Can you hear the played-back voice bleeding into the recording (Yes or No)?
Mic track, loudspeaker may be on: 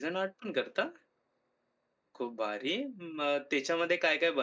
No